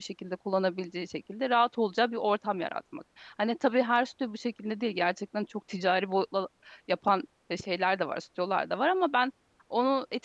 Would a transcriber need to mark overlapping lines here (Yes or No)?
No